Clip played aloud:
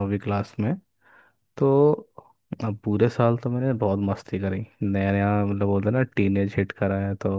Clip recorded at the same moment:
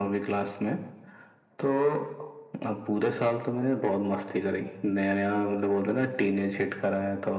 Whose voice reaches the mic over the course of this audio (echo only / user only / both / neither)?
echo only